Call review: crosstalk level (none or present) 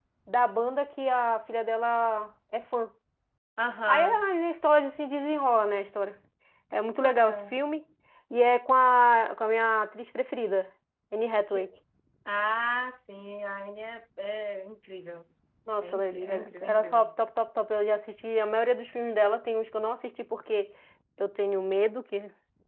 present